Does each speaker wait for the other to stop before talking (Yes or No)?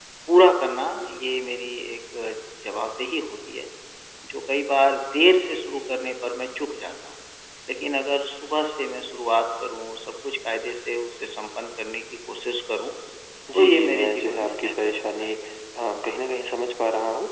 No